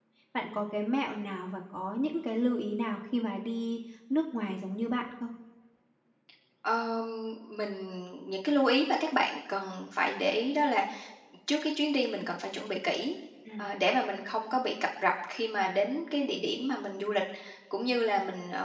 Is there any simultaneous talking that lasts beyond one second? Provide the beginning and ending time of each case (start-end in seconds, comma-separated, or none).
none